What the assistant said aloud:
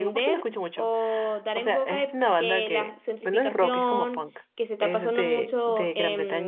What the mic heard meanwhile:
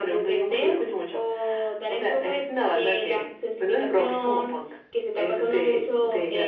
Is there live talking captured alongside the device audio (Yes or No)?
No